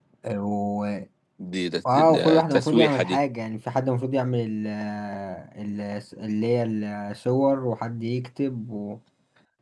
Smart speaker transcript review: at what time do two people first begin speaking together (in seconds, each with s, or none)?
1.9 s